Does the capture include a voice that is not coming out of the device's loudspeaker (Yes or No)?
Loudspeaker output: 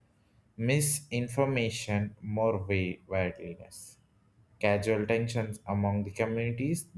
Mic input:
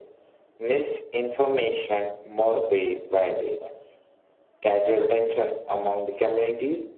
No